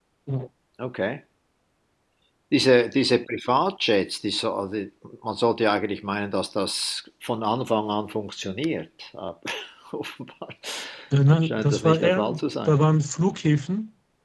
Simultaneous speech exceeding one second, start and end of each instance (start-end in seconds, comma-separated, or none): 11.4-12.7